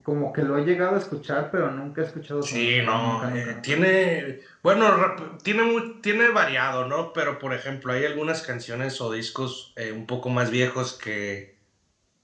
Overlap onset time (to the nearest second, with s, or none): 2 s